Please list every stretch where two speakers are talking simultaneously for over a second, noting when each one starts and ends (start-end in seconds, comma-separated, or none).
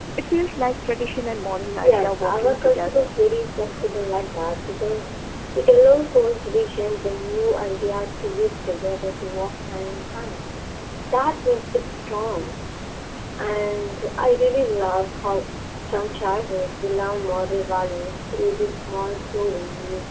1.8-3.1